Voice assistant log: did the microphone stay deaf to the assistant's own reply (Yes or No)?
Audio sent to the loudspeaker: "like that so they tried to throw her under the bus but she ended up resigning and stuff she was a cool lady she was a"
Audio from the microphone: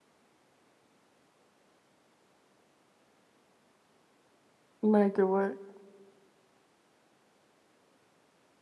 Yes